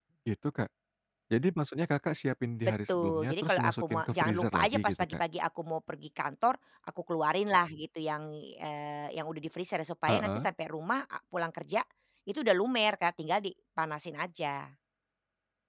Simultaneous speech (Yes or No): Yes